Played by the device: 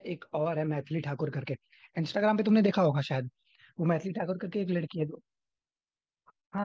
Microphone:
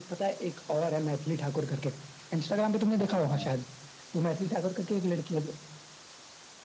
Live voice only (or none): हाँ हाँ